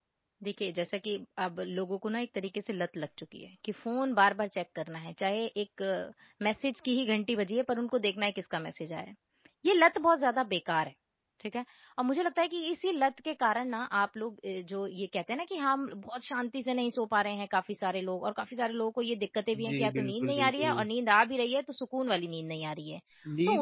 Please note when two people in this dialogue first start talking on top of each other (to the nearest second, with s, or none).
20 s